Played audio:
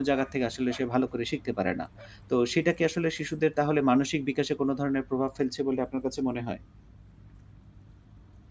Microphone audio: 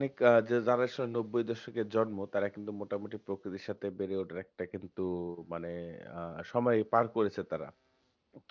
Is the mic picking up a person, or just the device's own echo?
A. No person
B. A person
B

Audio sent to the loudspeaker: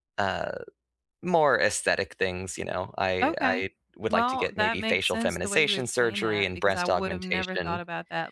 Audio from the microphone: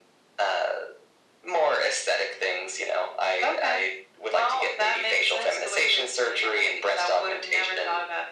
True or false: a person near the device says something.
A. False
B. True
A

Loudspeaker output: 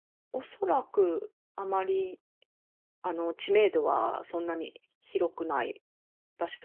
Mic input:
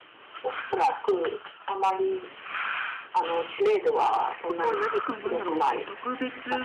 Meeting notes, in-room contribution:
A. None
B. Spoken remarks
B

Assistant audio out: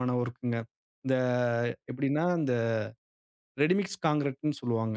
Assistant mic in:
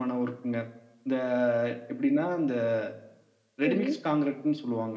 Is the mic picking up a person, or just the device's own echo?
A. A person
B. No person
A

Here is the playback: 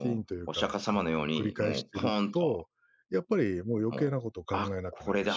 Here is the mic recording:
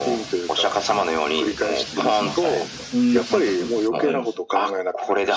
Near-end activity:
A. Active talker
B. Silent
A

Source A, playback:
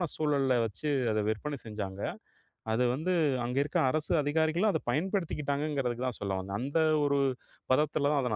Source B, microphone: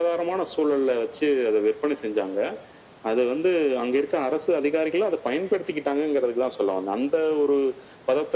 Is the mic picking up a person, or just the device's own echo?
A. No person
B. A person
A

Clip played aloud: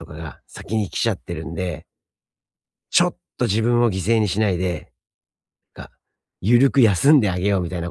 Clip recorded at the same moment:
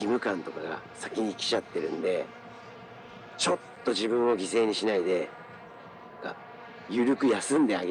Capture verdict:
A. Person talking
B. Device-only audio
B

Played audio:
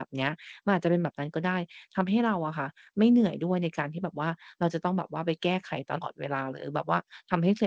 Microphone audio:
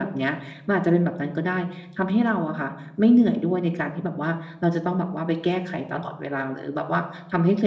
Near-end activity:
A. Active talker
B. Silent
B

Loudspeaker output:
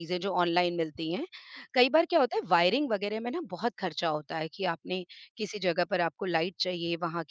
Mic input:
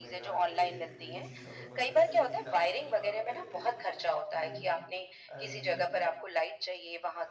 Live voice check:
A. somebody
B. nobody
A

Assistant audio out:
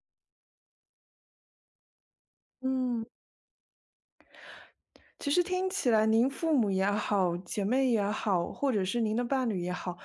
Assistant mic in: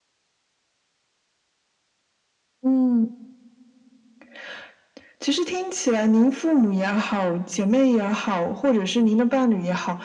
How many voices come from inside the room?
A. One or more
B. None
B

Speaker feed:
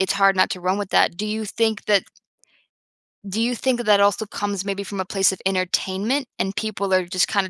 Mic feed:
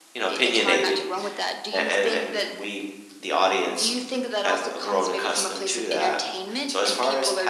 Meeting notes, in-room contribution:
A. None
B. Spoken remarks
B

